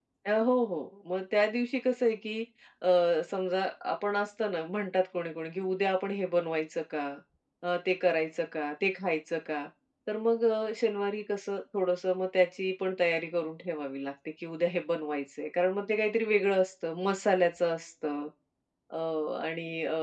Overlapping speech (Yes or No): No